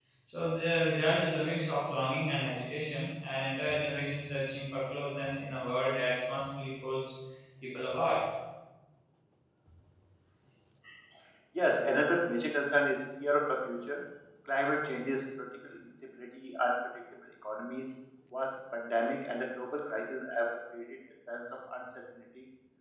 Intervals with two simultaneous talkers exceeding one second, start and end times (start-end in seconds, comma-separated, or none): none